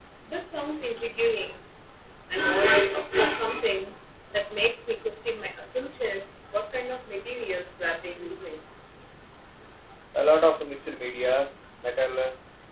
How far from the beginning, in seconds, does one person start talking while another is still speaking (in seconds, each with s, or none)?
none